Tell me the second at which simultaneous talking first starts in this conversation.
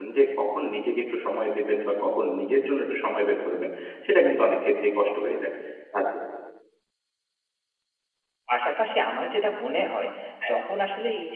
none

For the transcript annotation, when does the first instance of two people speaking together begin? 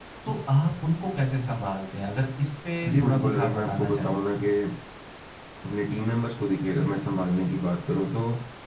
2.8 s

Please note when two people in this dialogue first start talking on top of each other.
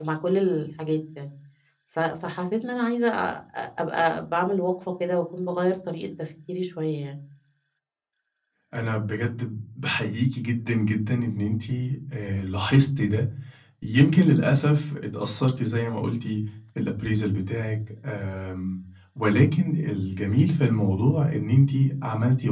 none

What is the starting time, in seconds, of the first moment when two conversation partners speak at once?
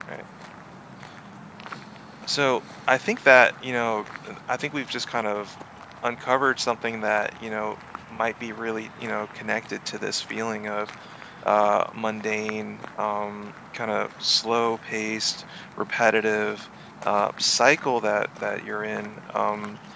none

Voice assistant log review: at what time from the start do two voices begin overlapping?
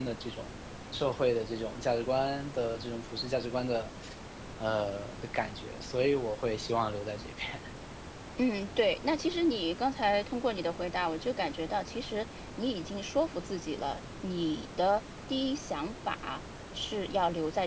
none

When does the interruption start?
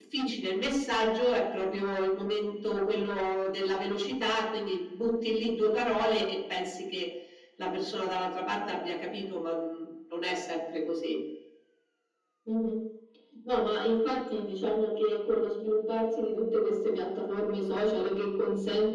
none

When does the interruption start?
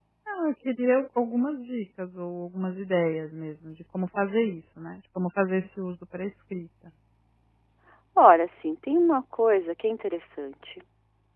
none

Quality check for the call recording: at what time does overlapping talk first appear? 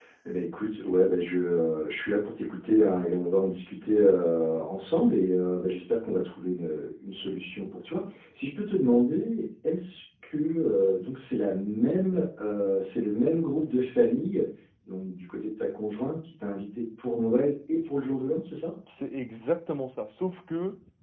none

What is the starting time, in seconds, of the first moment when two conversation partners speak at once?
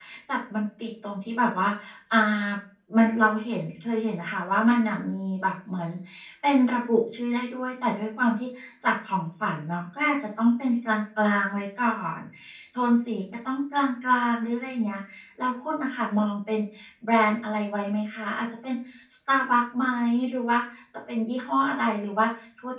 none

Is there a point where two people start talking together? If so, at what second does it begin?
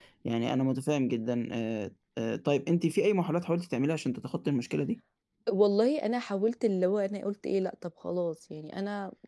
none

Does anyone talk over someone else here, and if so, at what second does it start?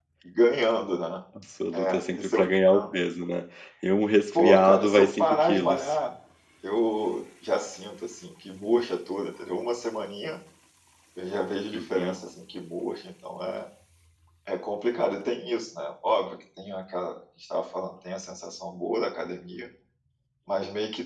1.7 s

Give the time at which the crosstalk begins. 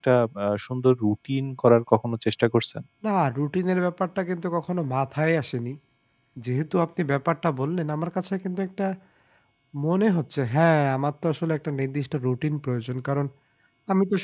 none

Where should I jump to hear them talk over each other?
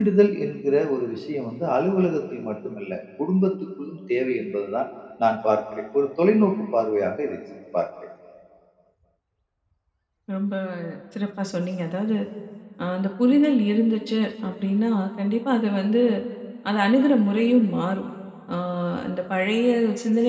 none

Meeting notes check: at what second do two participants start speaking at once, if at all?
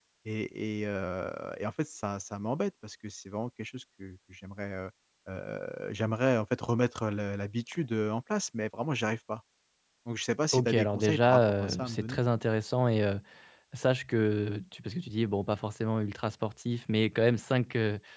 10.5 s

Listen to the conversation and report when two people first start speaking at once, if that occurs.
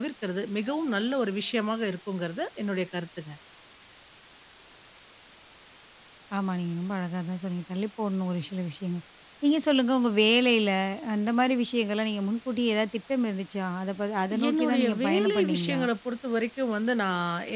14.3 s

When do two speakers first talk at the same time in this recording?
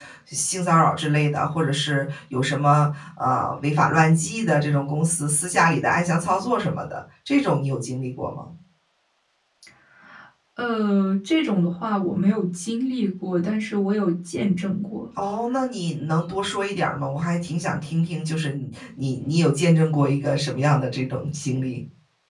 none

